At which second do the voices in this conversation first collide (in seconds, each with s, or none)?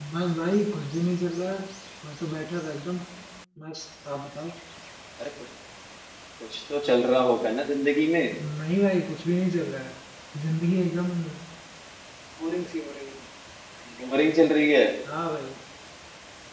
none